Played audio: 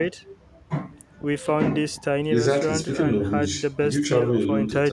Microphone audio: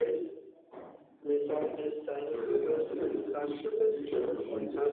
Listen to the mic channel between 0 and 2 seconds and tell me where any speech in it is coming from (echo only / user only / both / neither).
echo only